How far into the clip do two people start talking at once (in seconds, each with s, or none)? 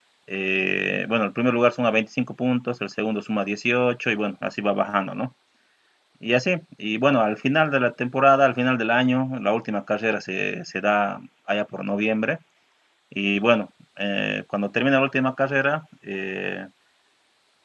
none